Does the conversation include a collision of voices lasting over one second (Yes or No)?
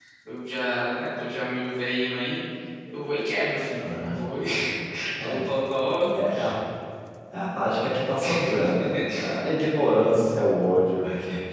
No